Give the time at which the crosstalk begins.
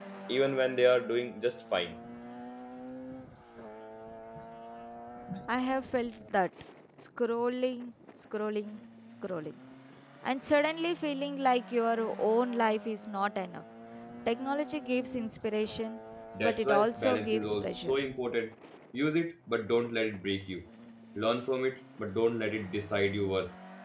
16 s

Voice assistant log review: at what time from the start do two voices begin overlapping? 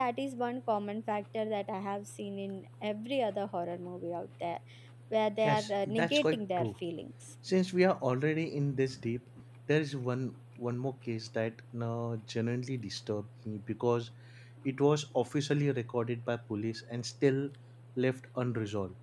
5 s

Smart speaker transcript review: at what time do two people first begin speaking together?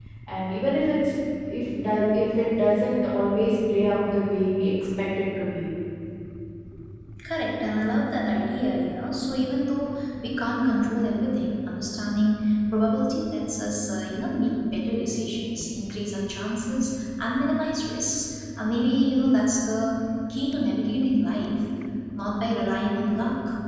none

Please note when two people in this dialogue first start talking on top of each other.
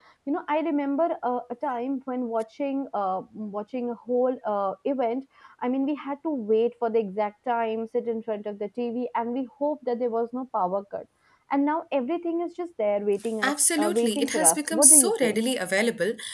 13 s

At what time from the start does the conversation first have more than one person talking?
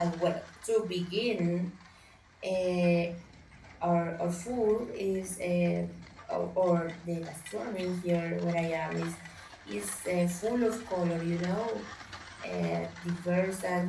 none

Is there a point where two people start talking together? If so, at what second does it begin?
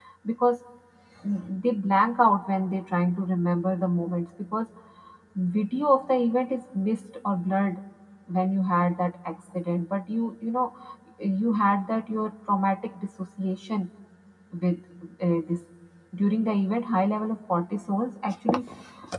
none

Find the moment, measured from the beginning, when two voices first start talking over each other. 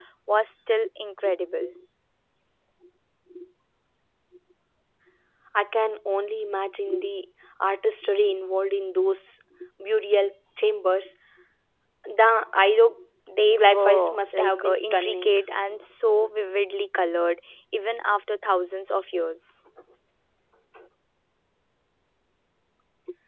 13 s

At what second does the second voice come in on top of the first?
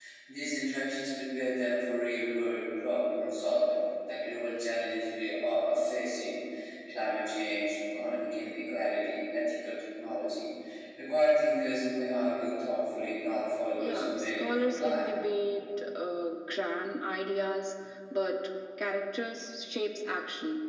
14 s

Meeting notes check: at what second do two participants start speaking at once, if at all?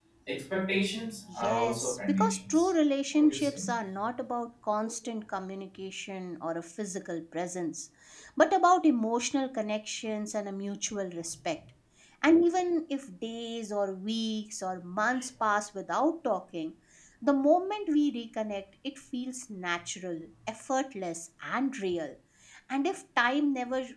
1 s

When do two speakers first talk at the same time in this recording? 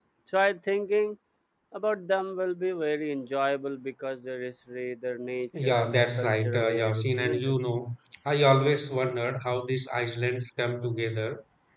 6 s

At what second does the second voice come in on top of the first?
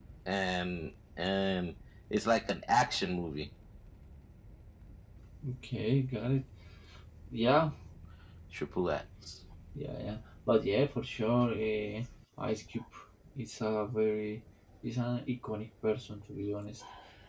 none

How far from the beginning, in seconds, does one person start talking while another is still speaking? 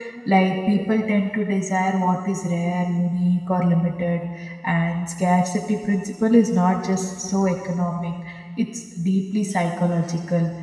none

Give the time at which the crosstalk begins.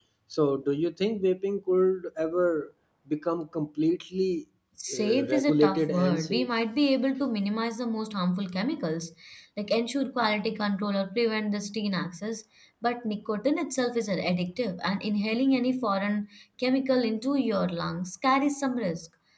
5 s

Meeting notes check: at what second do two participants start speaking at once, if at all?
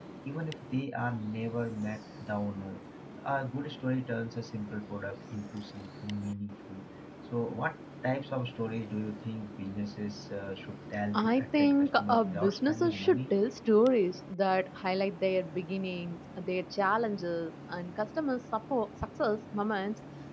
11 s

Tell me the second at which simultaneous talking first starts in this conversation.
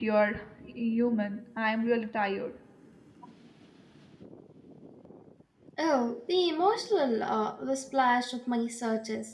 none

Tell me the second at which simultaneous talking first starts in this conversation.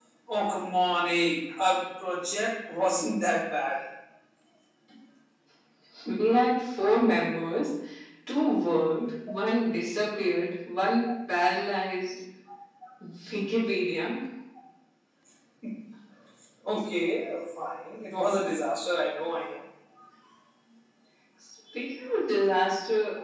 none

